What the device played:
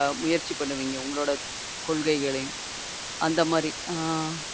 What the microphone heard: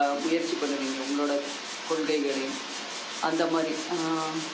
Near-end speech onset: none

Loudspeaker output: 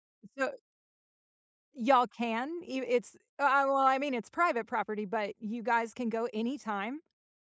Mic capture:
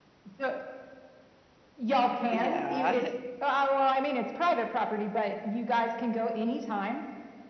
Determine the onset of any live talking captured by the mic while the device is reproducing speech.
2.3 s

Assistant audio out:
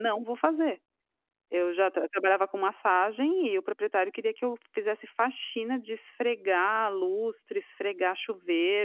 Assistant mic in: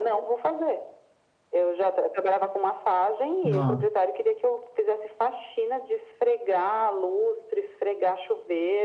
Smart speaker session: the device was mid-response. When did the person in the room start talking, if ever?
3.4 s

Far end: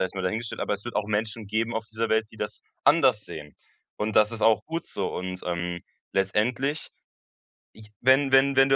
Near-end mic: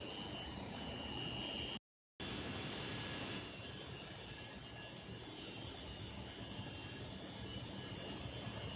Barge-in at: none

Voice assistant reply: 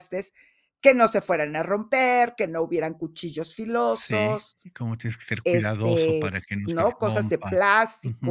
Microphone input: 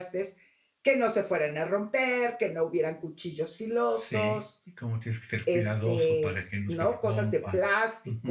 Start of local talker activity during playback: none

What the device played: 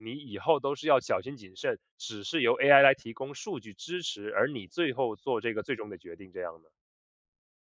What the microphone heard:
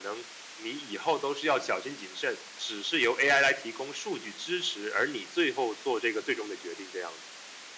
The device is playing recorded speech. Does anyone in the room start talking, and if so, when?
none

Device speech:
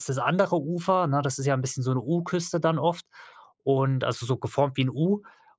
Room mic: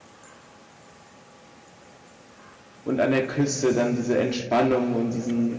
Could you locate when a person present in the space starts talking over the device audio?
2.8 s

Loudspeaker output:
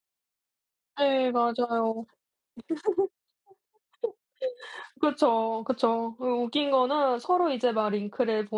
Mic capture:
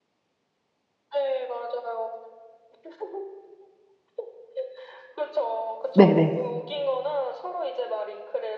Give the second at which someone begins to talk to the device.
5.9 s

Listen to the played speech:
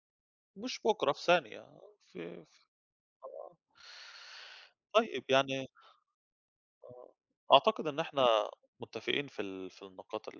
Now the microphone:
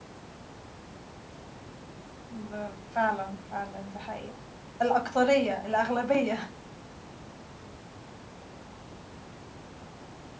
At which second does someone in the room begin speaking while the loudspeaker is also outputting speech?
2.3 s

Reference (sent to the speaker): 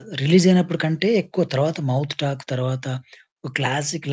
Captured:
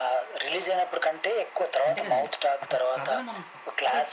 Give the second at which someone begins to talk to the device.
1.9 s

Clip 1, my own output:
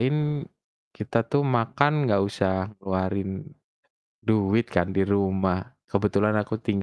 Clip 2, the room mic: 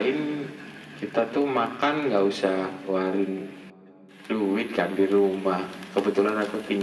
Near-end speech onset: none

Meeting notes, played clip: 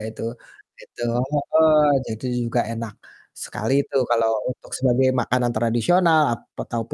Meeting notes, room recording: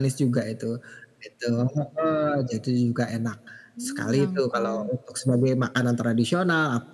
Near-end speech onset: 3.7 s

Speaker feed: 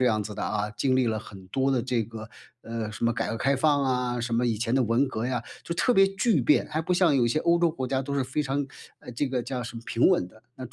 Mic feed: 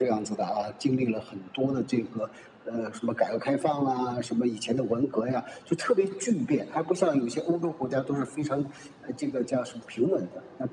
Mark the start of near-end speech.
none

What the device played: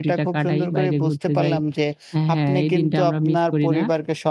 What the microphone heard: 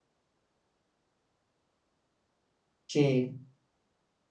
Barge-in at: 2.9 s

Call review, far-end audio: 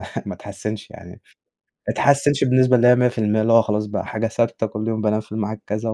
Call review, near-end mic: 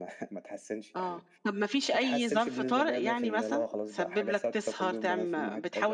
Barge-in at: 1.0 s

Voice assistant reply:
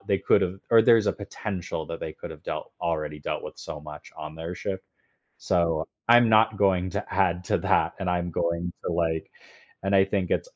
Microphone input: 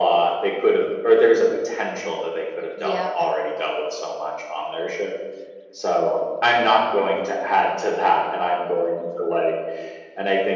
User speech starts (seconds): 2.7 s

